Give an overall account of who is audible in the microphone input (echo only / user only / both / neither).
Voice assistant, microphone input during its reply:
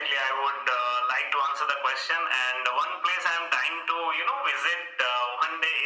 echo only